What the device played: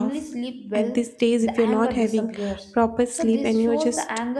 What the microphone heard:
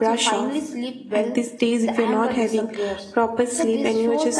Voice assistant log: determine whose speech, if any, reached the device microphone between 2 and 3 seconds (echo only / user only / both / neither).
echo only